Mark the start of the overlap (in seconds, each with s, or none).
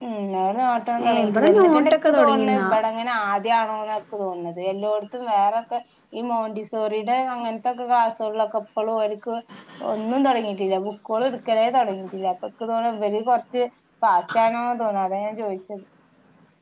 1.1 s